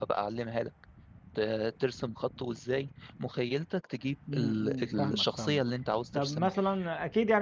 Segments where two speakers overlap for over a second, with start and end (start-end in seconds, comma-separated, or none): 4.3-5.6